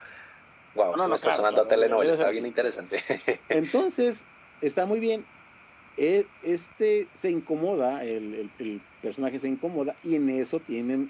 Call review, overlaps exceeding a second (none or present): present